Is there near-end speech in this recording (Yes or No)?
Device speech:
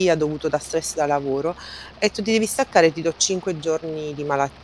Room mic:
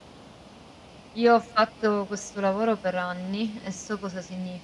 Yes